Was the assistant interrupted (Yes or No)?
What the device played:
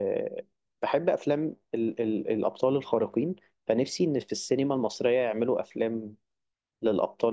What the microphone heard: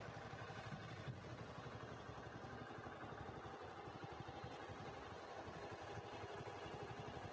No